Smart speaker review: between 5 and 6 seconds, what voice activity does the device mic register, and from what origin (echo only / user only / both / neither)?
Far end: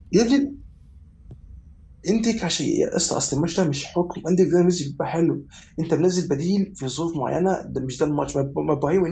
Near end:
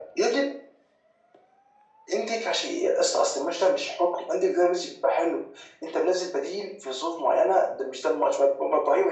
echo only